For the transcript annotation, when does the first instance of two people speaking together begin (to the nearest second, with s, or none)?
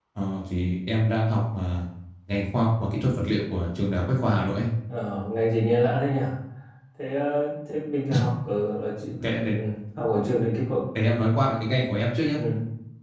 none